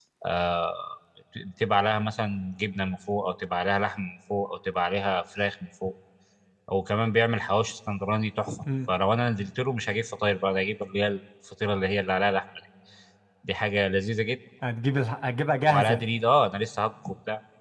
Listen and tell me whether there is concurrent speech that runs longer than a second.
No

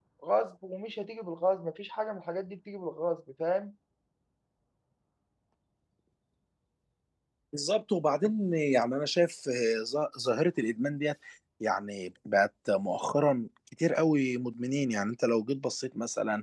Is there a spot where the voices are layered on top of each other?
No

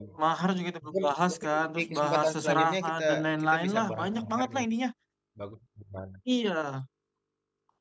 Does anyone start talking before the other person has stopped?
Yes, from 0.8 s

